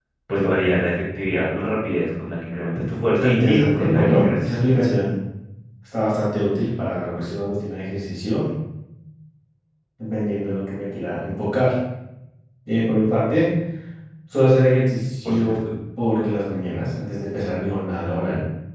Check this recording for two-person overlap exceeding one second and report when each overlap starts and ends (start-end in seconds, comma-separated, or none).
3.2-4.5